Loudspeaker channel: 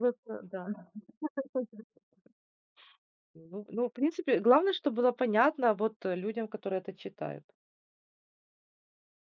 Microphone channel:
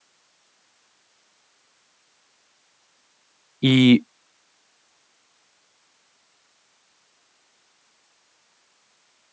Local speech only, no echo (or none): И,